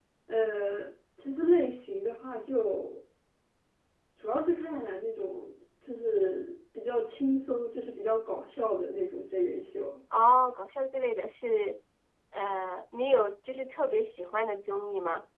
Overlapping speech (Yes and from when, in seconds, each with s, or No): No